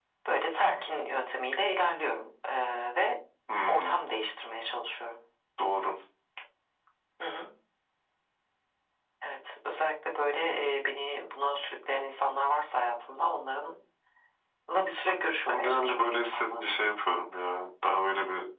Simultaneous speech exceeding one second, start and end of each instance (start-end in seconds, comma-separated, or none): 15.4-16.7